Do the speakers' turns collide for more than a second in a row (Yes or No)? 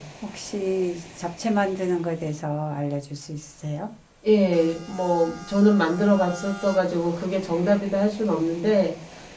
No